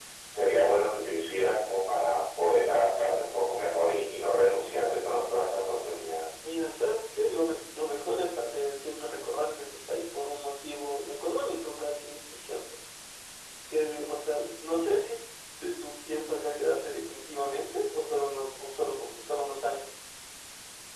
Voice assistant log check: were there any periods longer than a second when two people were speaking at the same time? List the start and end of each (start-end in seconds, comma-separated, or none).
none